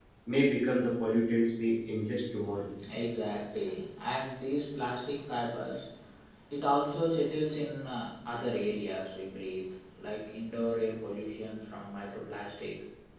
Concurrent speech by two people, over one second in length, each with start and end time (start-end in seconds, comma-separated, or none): none